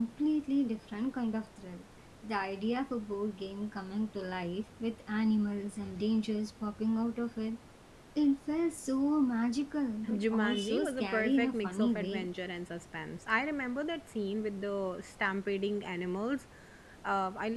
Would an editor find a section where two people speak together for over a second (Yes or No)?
Yes